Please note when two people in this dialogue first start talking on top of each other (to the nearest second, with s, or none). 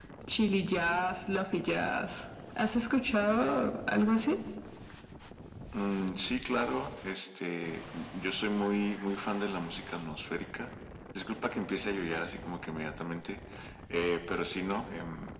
none